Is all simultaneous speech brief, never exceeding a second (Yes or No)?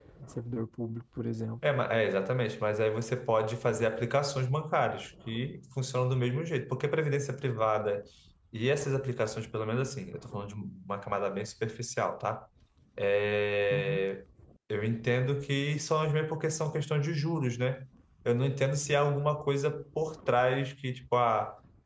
Yes